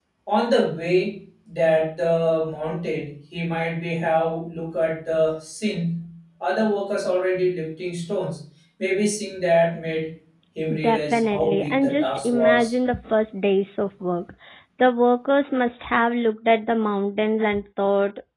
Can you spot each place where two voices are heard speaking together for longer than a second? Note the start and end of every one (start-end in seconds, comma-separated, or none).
10.8-12.7